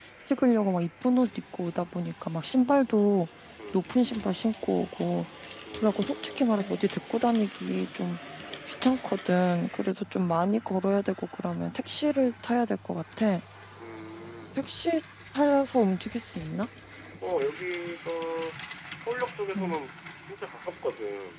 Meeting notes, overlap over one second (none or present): none